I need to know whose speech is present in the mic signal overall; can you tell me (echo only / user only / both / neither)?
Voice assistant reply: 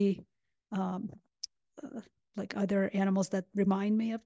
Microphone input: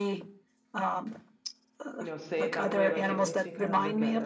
both